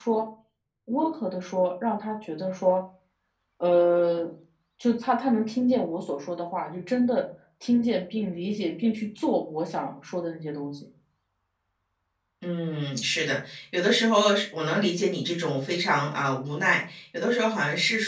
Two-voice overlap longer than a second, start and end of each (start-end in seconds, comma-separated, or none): none